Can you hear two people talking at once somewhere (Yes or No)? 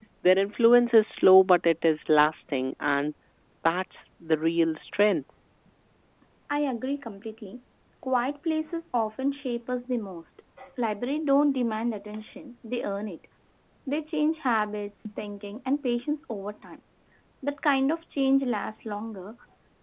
No